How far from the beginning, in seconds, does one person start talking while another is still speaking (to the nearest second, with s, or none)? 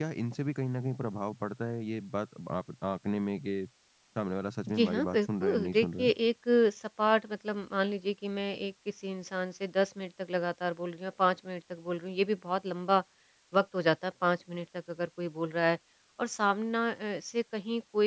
5 s